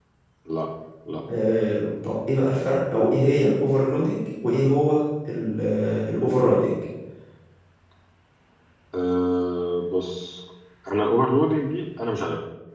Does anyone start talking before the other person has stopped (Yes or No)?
No